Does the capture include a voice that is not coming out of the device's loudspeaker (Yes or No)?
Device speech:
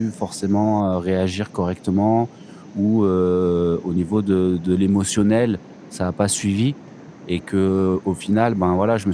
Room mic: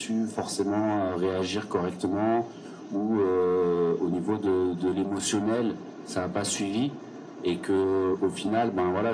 No